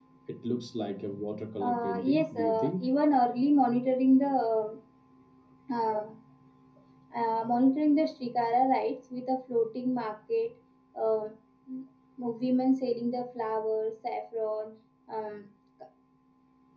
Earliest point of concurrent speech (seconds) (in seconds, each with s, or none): 1.6 s